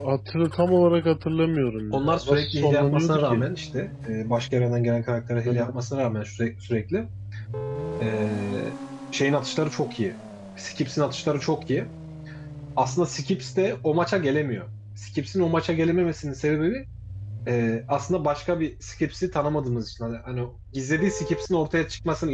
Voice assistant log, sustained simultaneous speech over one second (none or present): present